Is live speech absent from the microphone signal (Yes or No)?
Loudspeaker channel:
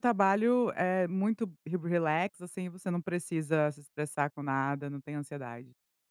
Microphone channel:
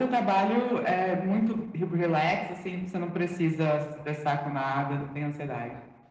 Yes